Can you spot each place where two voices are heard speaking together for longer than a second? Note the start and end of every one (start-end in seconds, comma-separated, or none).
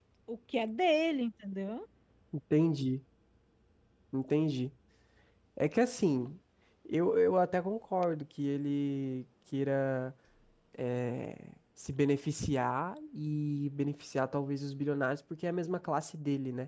none